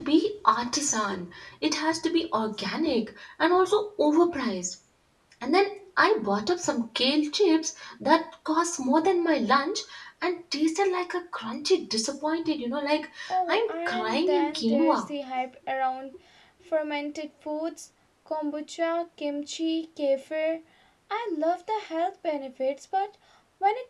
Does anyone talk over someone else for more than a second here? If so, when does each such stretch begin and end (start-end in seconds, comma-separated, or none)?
13.5-15.0